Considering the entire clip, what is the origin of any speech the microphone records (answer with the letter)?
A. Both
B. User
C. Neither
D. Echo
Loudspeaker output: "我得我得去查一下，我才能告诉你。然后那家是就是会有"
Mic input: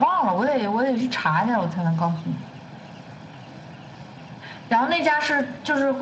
D